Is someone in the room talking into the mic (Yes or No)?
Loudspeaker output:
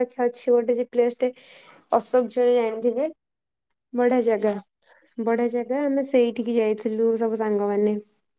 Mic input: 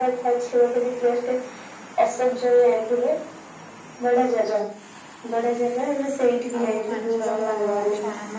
Yes